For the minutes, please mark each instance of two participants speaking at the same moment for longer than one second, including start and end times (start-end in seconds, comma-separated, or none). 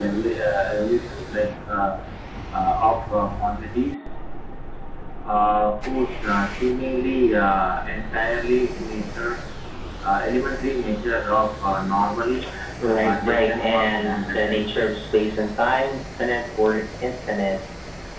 13.0-14.6